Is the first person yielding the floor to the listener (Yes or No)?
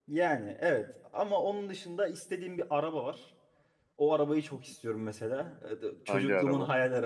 No